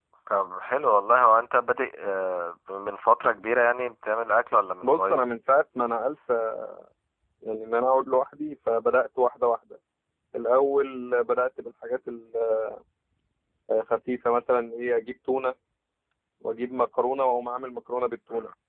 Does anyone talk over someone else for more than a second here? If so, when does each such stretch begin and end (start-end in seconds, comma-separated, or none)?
none